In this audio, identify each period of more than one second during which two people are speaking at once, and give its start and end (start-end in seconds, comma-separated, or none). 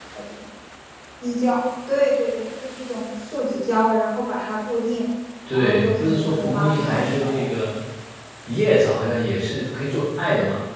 5.5-7.5